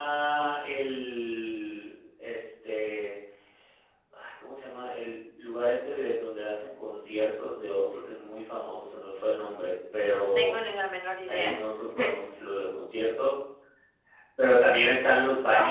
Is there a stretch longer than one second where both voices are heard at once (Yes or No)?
No